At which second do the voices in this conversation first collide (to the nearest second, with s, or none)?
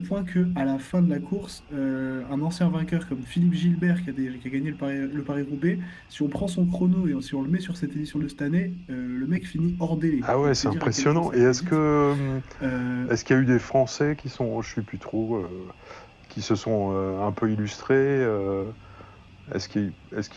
10 s